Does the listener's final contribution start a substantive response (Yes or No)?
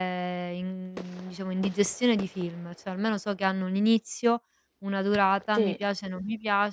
No